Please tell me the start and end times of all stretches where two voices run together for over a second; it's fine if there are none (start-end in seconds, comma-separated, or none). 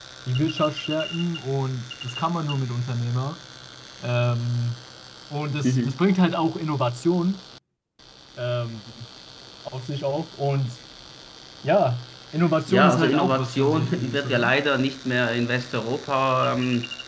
12.7-14.5